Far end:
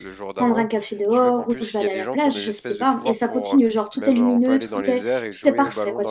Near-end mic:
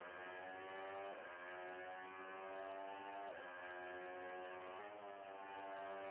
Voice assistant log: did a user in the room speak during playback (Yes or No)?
No